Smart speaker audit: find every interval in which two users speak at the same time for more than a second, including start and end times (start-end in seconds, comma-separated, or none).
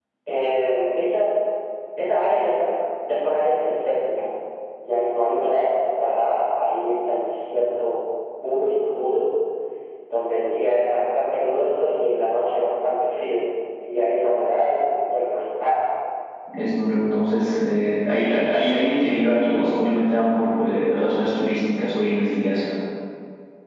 none